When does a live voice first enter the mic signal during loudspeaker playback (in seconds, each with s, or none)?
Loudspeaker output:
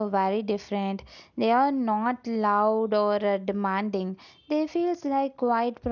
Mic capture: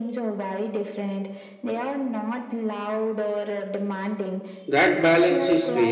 4.7 s